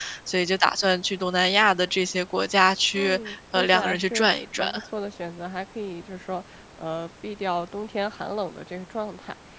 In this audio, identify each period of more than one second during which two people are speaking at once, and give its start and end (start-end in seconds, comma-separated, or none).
3.0-4.7